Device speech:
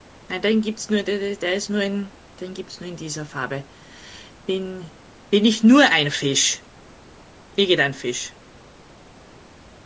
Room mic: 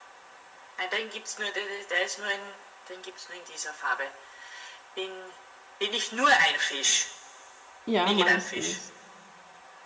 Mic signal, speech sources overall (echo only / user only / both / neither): both